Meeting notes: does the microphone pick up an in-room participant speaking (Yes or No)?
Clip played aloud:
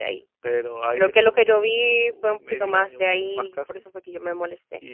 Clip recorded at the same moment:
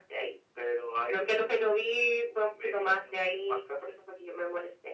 No